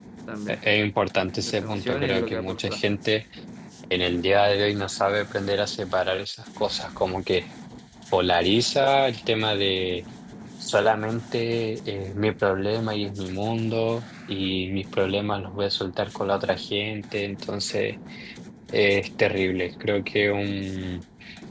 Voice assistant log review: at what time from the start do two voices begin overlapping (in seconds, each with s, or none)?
1.4 s